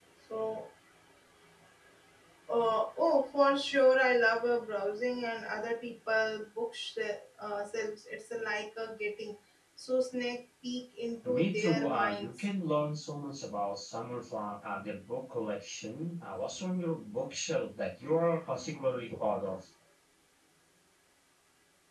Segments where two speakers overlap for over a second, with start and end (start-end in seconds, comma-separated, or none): 11.2-12.4